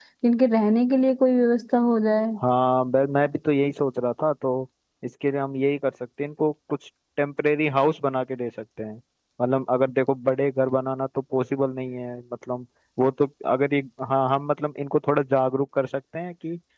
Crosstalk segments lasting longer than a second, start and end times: none

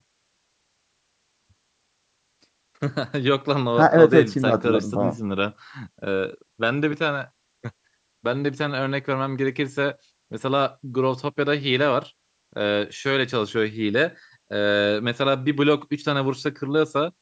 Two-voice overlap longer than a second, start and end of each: 3.8-5.2

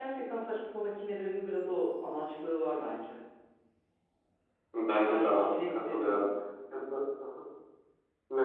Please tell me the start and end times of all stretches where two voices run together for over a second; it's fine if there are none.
5.0-6.2

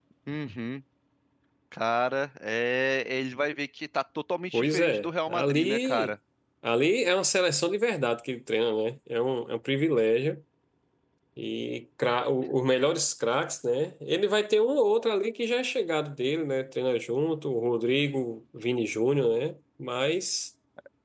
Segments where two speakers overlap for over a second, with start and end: 4.5-6.1

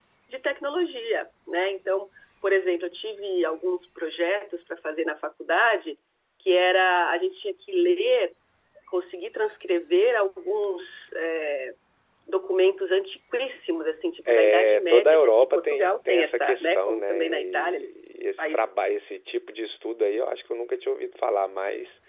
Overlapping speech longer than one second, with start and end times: 14.5-17.9

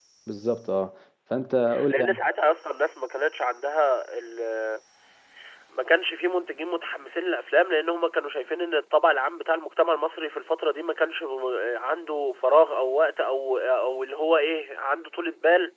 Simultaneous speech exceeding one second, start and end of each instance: none

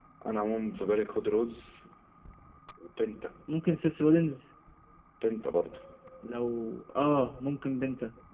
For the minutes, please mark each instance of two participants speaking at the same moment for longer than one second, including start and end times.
none

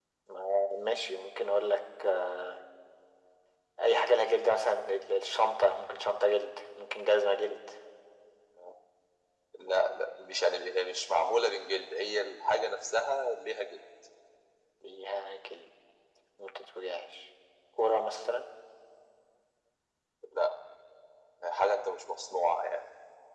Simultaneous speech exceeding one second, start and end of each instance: none

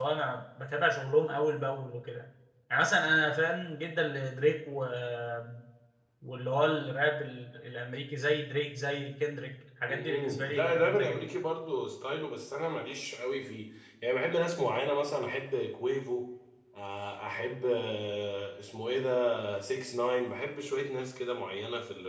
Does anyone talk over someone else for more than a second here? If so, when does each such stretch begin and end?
9.9-11.3

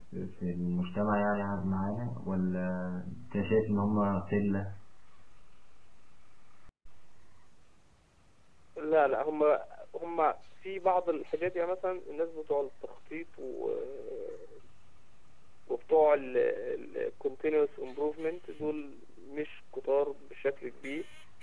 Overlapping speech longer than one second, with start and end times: none

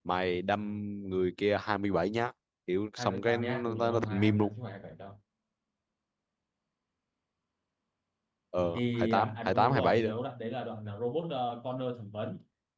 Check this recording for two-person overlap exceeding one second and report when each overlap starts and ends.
3.0-4.5, 8.7-10.1

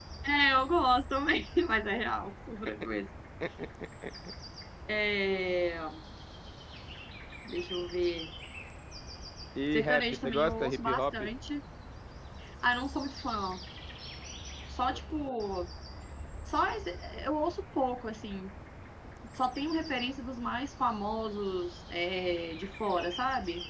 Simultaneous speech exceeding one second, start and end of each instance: 9.7-11.0

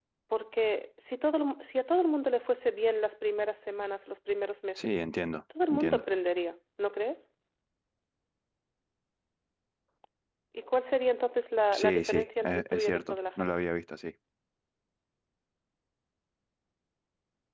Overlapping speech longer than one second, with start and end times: 11.7-13.5

